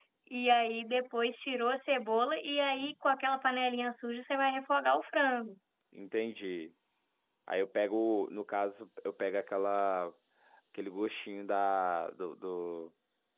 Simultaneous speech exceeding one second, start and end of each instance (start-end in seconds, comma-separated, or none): none